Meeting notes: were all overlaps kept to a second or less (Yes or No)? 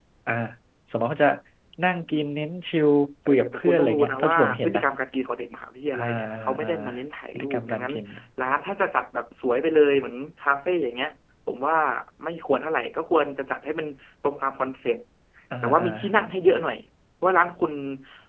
No